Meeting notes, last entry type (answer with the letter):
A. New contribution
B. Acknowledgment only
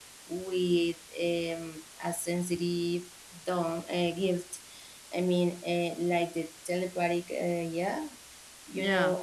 B